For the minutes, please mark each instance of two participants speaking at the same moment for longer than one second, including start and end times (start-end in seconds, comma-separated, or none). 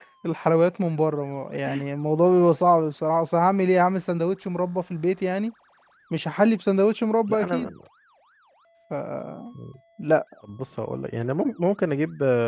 none